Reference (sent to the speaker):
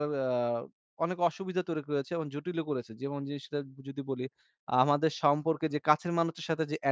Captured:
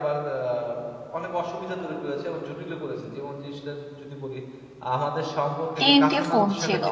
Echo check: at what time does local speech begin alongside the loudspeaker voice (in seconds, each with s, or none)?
5.8 s